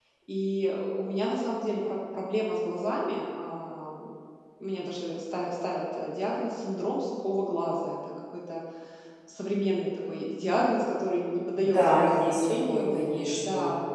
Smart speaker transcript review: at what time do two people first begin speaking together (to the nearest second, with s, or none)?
12 s